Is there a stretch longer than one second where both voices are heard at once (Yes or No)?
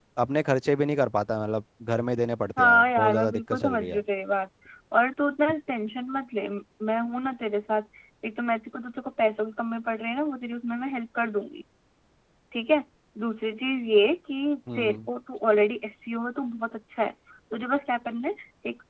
Yes